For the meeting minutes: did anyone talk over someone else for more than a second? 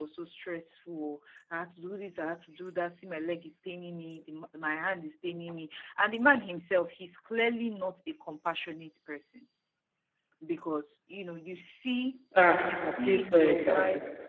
Yes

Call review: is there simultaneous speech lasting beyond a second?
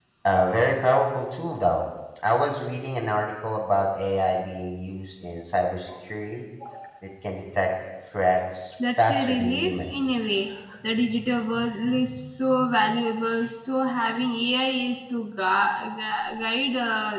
Yes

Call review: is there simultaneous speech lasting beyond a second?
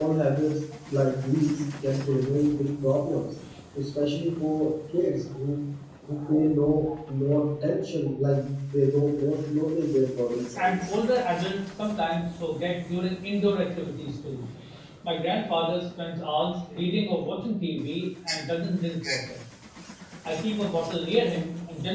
No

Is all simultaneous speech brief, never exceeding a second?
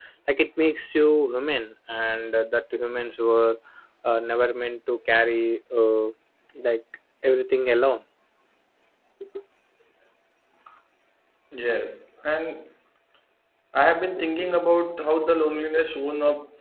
Yes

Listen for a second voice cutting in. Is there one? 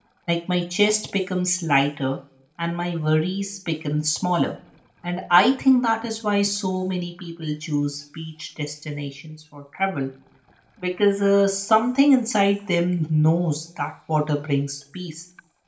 No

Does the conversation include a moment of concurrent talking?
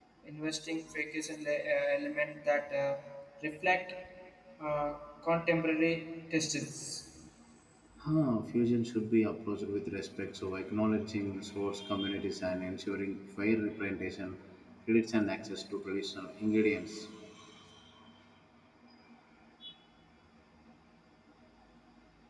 No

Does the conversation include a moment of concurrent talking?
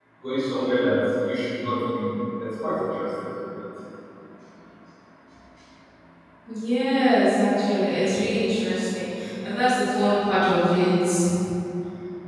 No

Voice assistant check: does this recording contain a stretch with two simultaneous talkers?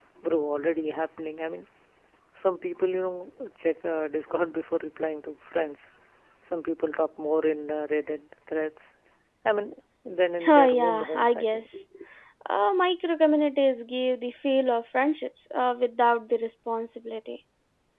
Yes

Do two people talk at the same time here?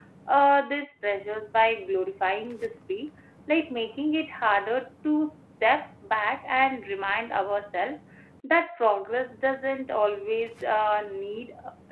No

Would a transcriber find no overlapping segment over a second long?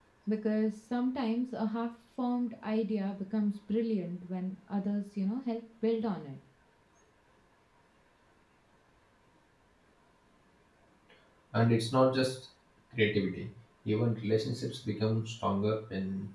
Yes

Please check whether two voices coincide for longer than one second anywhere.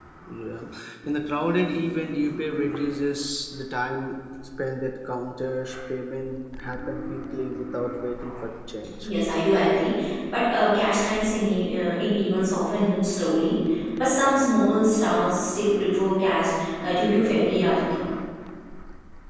No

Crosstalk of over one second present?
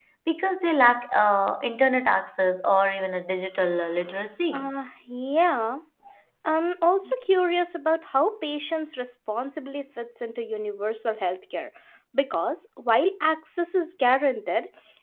No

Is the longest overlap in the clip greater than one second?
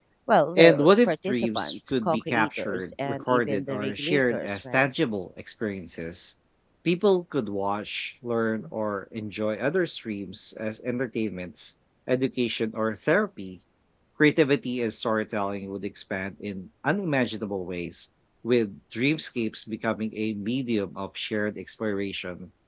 Yes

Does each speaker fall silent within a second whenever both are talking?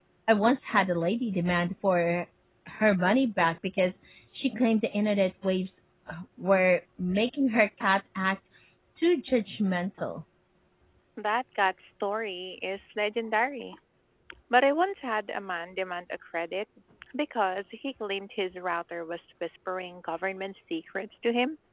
Yes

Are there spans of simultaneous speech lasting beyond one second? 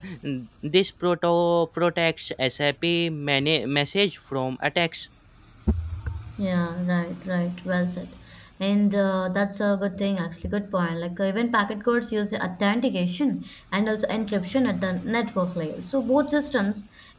No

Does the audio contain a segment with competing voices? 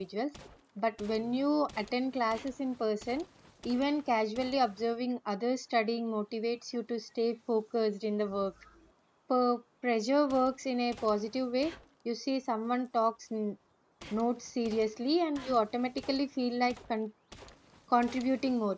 No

